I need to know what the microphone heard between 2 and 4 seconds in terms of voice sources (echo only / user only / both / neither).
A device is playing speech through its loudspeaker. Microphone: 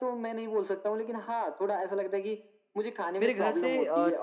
both